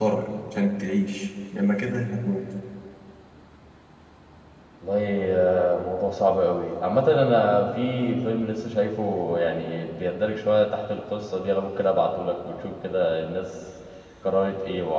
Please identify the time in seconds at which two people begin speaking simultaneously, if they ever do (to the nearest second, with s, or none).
none